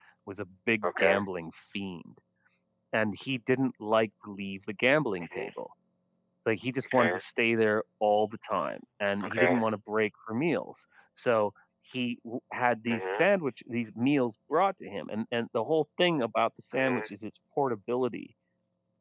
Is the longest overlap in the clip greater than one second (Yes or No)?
No